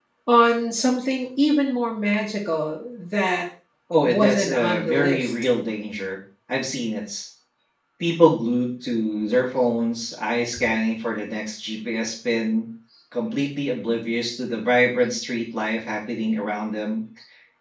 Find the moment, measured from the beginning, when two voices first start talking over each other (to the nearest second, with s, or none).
4 s